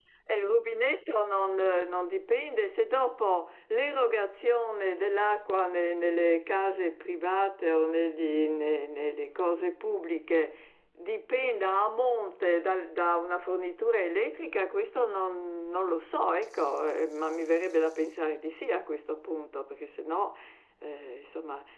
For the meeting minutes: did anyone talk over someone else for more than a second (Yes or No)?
No